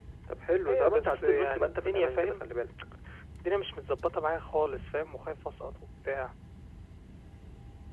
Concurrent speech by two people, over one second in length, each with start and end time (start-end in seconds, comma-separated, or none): 0.7-2.4